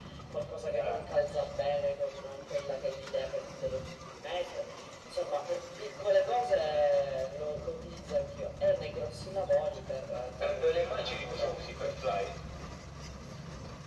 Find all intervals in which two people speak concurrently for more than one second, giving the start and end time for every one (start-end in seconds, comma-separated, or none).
10.4-11.9